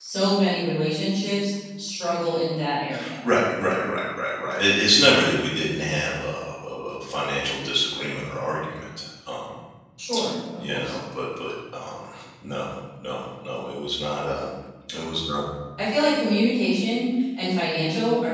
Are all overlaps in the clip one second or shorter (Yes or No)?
Yes